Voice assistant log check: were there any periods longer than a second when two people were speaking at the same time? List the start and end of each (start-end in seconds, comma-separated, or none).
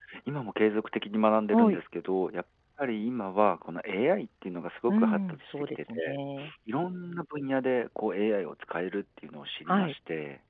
4.9-6.2